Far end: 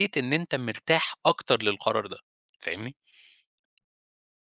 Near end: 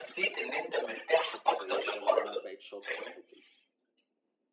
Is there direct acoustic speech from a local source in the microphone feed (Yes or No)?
Yes